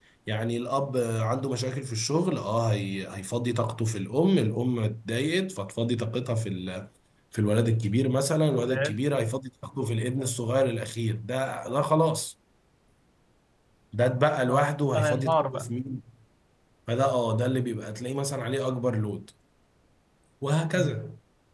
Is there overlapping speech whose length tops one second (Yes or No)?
Yes